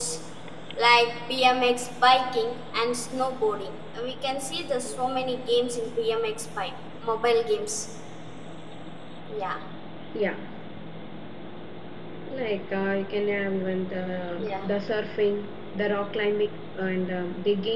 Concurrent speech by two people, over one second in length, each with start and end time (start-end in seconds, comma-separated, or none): none